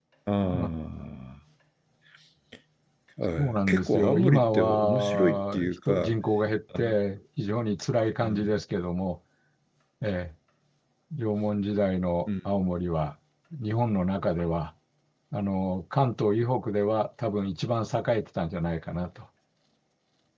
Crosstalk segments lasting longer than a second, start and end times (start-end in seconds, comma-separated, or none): 3.4-6.1